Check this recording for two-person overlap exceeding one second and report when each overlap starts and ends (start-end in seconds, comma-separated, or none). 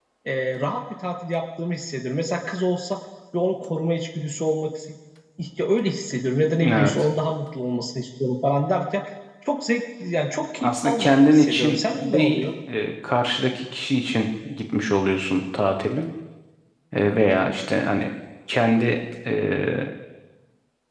10.6-12.4